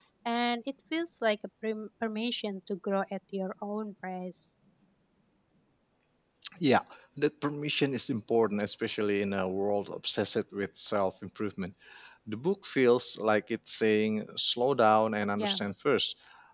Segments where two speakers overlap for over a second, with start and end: none

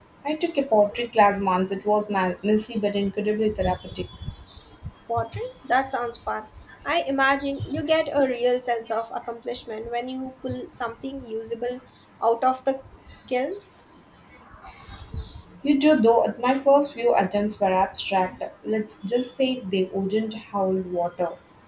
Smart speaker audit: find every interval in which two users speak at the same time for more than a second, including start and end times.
none

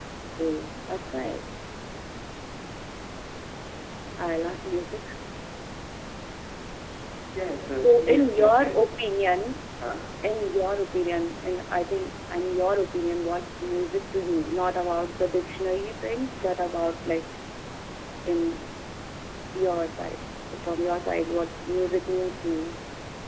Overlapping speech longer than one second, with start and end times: 7.8-9.2

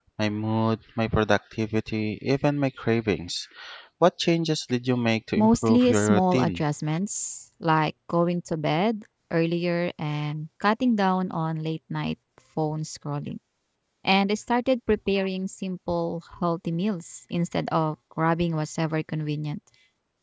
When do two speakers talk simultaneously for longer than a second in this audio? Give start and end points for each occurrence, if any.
5.4-6.6

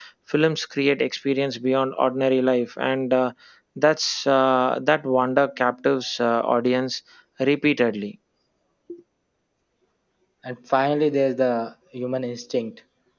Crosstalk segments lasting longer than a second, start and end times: none

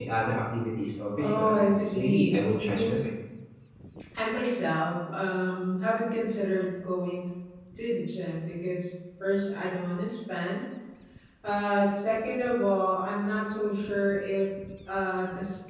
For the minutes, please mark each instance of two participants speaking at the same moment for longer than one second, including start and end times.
1.2-3.0

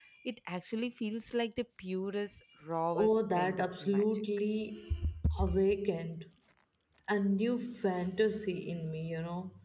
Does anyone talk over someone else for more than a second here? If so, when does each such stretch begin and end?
3.0-4.2

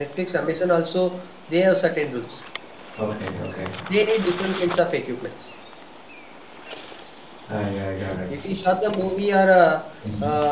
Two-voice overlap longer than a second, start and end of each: none

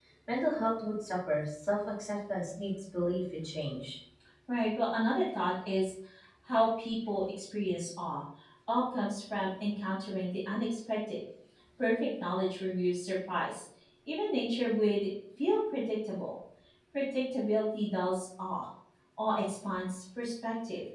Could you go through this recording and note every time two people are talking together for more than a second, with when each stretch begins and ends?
none

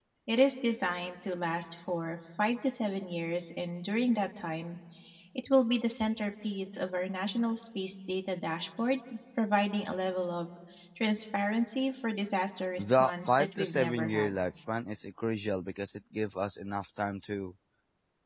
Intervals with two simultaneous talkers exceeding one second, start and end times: 12.8-14.3

